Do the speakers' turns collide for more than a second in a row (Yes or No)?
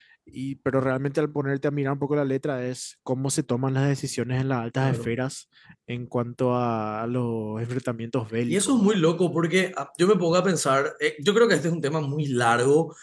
No